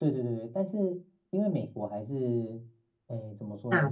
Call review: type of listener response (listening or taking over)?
listening